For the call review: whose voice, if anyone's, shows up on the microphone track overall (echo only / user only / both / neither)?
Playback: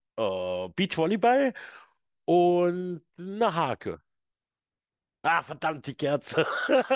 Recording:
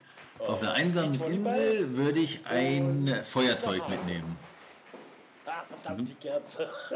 both